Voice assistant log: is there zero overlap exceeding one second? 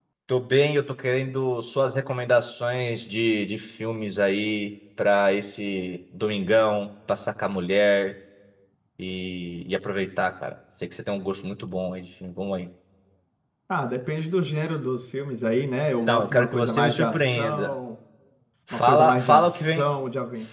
No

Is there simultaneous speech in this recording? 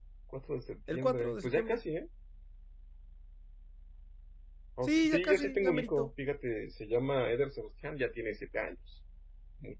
Yes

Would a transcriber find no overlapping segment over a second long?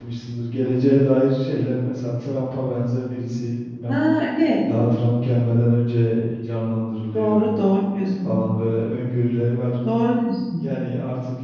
Yes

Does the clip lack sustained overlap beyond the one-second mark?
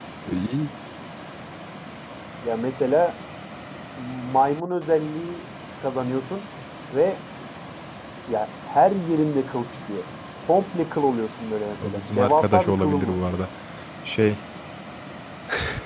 No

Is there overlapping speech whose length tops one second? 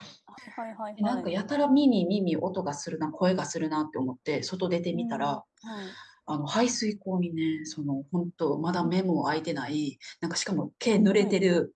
No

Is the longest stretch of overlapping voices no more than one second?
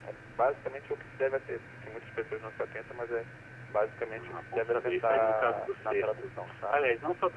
No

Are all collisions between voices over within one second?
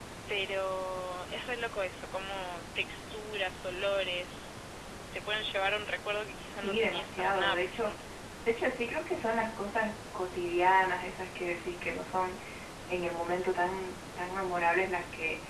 No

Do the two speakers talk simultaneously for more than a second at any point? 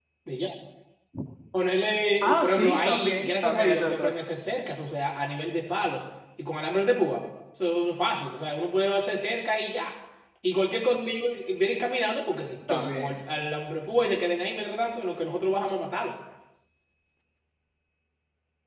Yes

